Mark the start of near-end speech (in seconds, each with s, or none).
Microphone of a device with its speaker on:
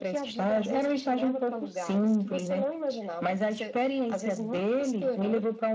none